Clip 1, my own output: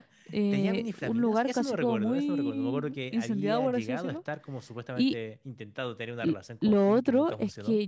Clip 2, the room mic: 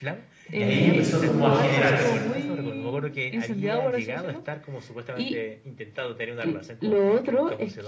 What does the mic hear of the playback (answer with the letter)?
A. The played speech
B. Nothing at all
A